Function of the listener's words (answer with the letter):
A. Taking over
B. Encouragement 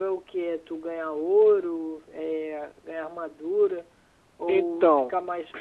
B